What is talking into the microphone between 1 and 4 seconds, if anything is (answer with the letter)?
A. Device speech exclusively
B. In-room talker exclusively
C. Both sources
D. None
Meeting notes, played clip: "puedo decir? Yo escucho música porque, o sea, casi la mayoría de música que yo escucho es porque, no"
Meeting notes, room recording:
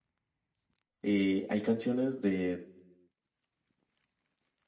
B